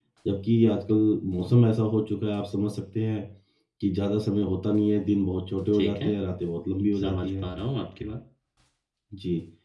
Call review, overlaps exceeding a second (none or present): none